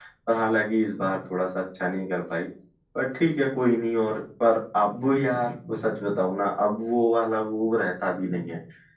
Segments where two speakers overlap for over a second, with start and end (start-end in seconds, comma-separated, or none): none